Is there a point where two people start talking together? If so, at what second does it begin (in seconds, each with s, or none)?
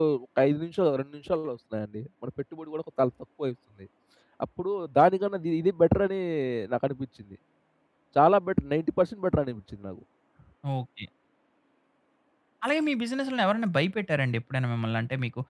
none